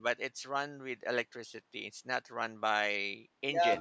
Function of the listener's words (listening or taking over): taking over